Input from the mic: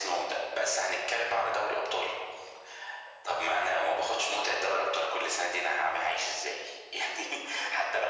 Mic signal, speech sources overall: echo only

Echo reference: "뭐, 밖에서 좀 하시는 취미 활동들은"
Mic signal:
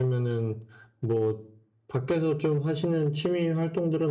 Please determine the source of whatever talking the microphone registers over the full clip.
echo only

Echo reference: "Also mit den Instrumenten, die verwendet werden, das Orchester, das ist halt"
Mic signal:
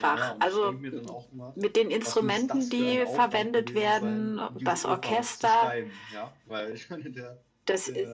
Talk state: both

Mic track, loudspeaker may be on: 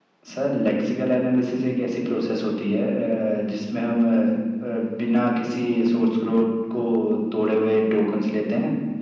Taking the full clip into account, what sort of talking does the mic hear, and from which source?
echo only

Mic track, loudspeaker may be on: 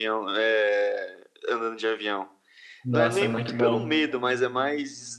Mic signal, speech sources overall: both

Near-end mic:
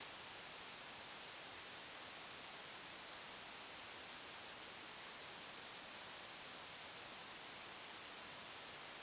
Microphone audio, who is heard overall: neither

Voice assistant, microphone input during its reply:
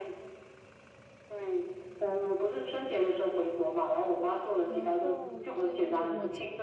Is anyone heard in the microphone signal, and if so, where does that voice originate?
both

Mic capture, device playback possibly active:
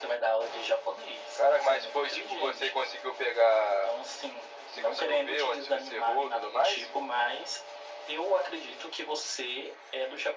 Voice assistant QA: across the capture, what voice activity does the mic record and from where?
echo only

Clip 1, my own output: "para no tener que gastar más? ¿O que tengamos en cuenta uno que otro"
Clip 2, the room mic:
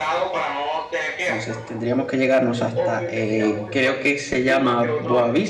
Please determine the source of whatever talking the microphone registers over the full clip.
both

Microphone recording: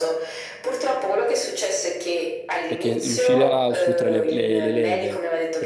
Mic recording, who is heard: both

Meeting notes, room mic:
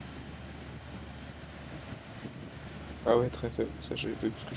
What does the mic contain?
user only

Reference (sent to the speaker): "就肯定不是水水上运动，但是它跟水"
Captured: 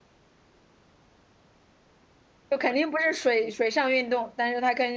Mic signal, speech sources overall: echo only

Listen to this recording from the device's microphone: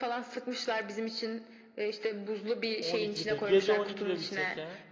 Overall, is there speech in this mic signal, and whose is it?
both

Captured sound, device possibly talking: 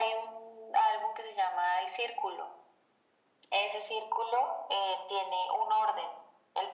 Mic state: echo only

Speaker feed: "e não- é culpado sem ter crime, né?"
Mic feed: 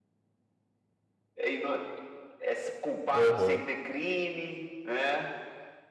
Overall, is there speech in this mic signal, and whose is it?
both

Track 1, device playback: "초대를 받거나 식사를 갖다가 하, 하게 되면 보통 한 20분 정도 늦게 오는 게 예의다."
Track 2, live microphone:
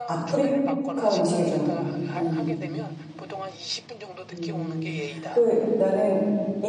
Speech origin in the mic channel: both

